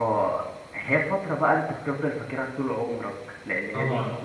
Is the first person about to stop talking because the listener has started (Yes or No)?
No